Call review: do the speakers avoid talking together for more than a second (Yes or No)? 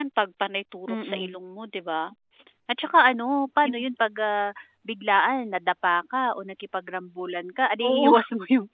Yes